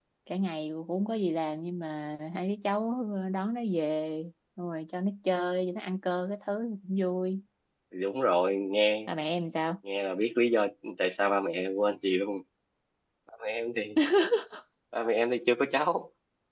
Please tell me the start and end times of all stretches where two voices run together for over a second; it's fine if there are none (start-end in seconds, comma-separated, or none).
none